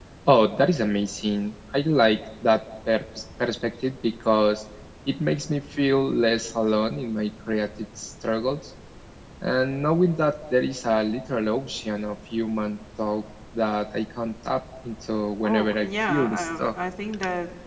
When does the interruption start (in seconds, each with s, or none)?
15.4 s